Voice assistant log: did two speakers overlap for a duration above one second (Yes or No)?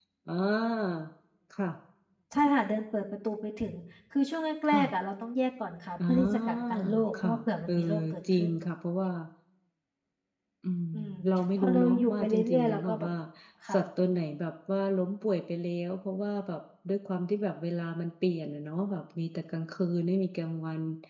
Yes